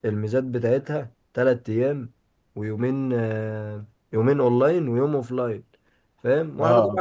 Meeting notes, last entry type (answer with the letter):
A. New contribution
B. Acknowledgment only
B